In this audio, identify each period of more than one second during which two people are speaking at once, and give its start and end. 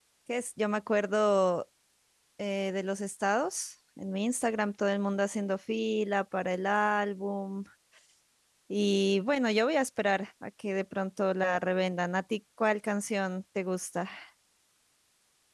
none

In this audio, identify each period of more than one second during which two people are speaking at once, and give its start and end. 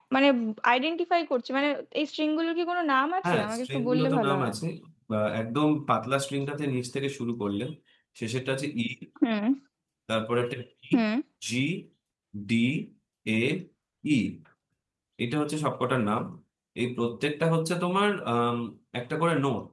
3.2-4.5

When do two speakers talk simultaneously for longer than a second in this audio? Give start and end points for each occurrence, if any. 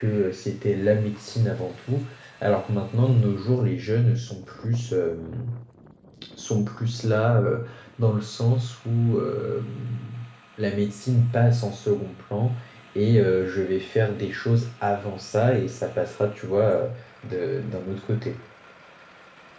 none

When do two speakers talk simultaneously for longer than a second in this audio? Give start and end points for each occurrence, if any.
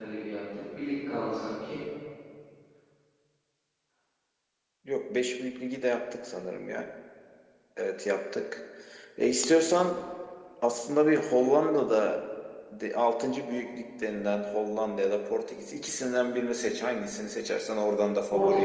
none

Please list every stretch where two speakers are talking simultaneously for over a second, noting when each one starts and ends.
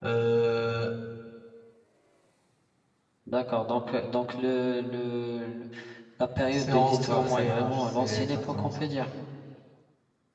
6.5-8.8

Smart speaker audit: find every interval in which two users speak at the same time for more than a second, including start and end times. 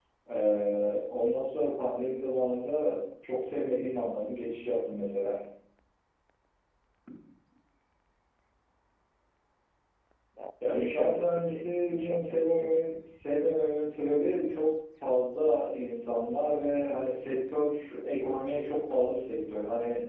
10.7-12.8

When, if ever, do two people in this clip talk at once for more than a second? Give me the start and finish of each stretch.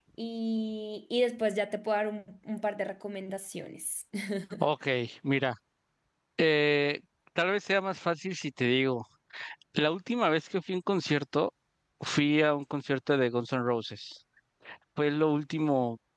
none

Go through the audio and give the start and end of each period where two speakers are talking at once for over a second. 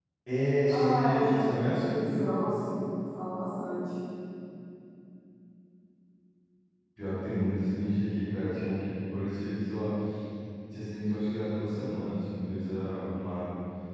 0.7-1.9

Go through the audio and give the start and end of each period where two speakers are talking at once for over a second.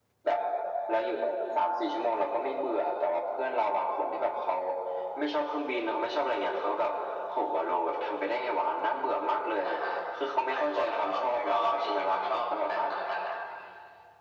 10.5-12.8

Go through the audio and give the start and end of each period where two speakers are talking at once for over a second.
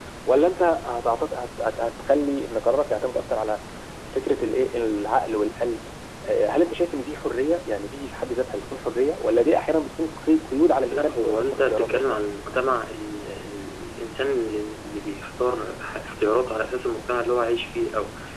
10.9-12.2

